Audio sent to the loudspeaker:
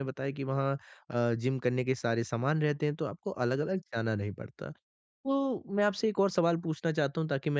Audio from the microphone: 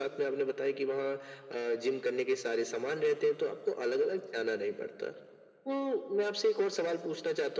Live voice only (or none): none